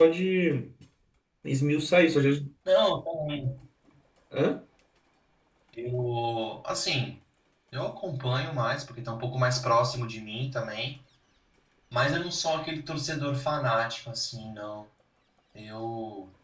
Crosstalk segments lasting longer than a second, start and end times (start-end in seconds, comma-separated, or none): none